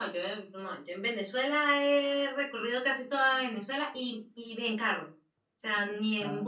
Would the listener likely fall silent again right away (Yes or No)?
Yes